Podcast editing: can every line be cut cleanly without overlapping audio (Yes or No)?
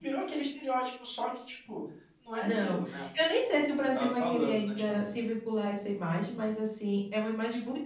No